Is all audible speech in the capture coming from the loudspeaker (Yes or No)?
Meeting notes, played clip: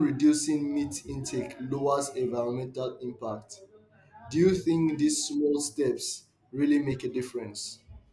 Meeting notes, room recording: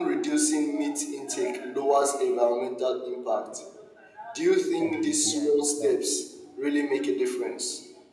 No